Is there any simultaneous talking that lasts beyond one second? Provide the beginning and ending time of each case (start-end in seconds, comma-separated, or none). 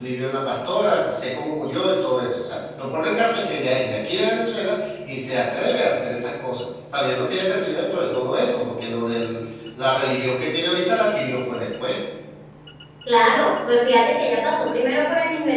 none